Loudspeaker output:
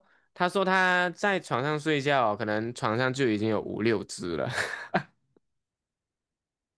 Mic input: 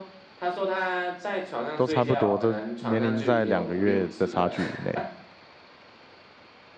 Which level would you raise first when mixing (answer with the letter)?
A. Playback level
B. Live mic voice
A